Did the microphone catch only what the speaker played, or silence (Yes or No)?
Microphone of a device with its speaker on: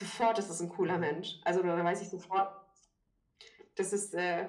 No